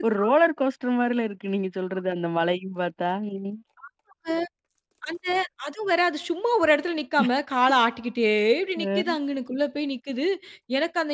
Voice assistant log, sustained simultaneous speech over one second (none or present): none